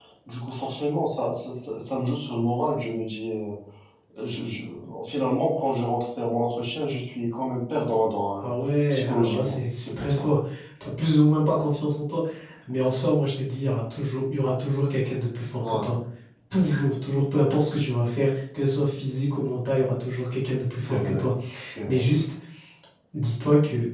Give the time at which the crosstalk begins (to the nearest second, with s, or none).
9 s